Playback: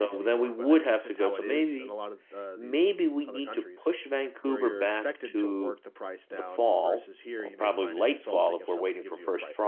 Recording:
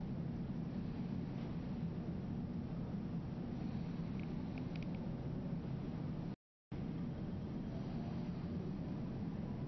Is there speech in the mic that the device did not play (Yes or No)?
No